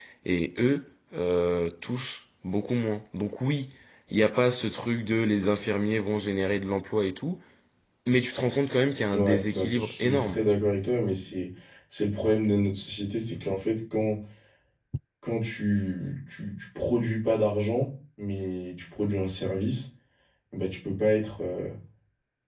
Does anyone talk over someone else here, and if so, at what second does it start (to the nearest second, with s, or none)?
9 s